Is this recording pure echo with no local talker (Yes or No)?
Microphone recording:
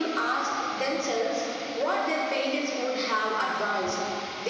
Yes